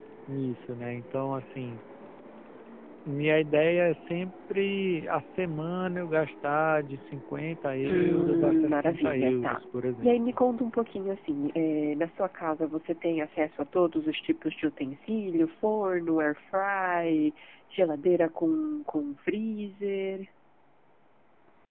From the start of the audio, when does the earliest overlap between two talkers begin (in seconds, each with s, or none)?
7.8 s